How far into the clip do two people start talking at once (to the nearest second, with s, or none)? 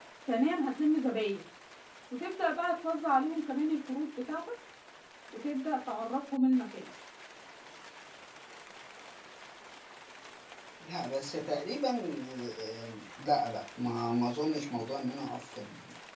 none